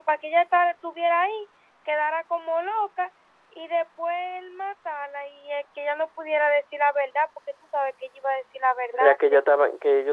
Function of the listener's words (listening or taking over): taking over